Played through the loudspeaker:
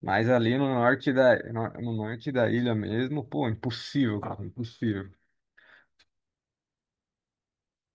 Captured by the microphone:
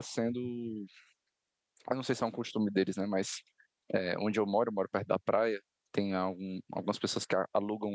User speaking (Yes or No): Yes